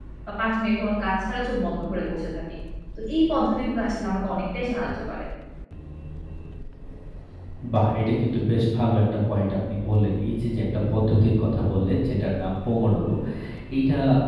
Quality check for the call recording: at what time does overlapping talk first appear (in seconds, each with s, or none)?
none